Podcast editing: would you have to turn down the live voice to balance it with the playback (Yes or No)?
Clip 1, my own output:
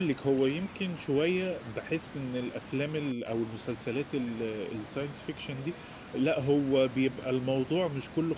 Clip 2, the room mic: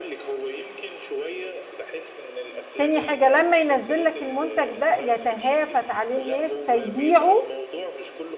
Yes